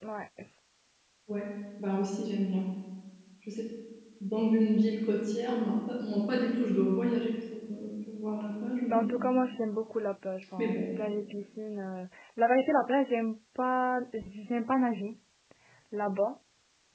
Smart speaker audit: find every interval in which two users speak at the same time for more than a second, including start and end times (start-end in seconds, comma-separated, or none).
none